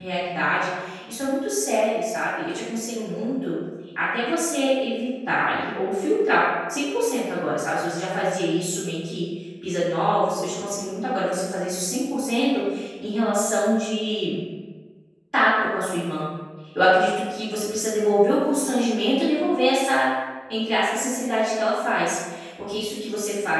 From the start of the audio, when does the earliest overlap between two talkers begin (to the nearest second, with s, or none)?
none